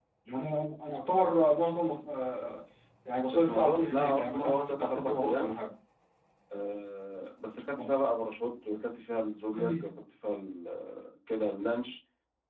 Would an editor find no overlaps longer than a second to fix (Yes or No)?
No